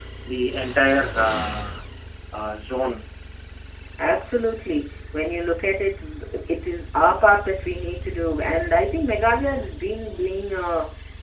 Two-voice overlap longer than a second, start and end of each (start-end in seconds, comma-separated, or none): none